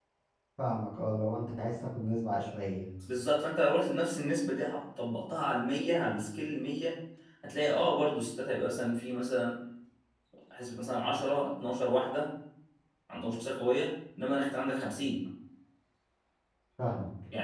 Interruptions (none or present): none